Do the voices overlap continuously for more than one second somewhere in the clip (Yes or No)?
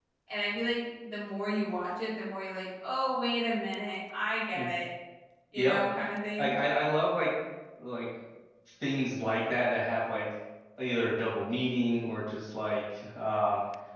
No